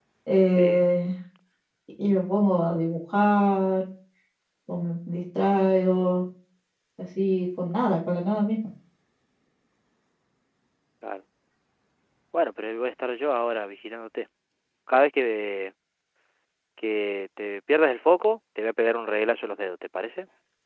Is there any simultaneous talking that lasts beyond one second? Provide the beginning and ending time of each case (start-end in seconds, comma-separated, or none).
none